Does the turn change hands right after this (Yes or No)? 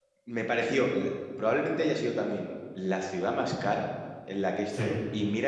No